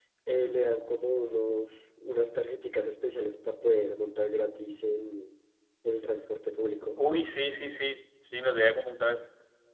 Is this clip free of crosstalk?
Yes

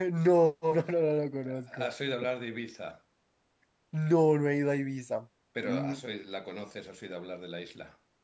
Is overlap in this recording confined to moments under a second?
Yes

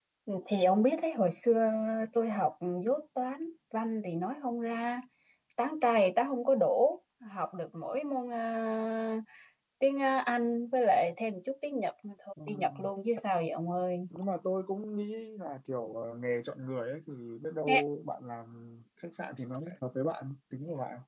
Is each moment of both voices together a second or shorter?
Yes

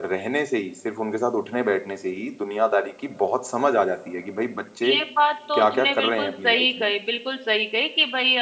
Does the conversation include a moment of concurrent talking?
Yes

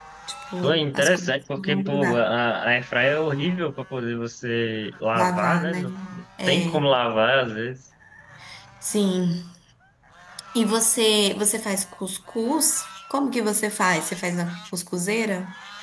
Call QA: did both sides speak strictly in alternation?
No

